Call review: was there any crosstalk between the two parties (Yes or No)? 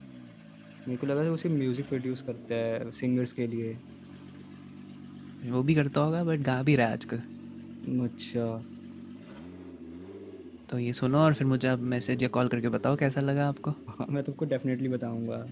No